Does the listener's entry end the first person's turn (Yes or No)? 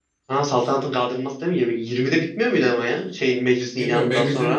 Yes